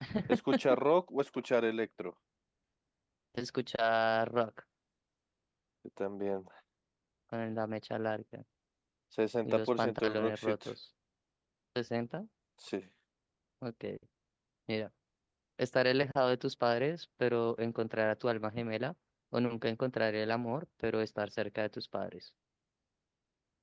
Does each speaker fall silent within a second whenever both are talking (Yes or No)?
No